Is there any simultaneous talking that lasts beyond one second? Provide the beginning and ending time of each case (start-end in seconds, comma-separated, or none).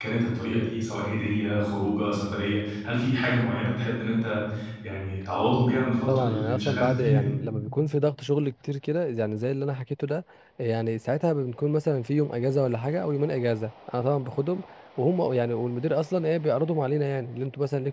6.1-7.3